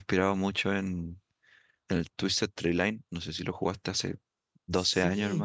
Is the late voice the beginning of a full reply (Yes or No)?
Yes